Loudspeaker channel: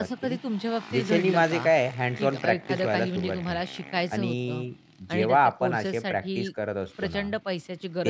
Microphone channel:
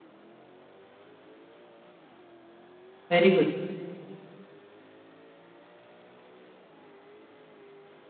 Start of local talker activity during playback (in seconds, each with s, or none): 3.1 s